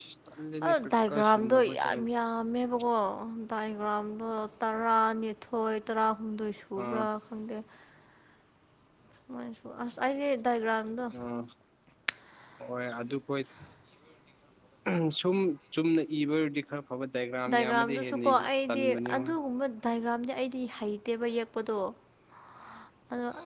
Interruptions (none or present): present